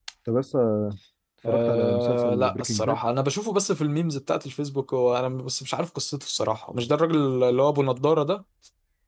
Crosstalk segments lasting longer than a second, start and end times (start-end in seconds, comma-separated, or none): 1.5-3.0